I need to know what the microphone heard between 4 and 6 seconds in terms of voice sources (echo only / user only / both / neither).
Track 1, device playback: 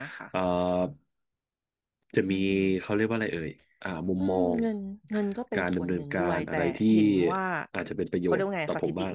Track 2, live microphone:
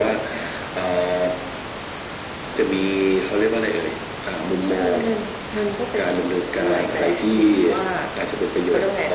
echo only